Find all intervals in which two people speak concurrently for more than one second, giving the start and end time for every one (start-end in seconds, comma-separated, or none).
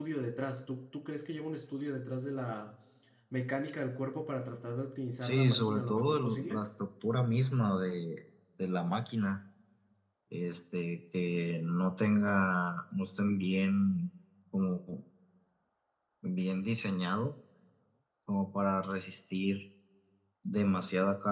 5.2-6.6